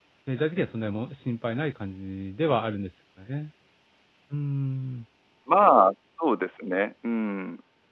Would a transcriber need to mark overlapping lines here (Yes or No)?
No